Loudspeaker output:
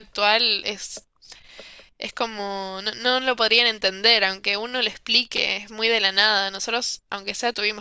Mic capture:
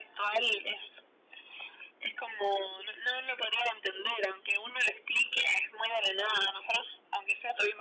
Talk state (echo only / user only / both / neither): echo only